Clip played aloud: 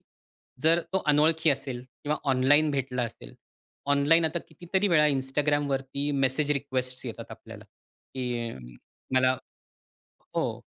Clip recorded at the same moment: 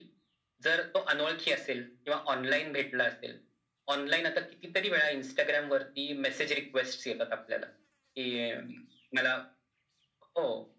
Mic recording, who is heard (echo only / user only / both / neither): echo only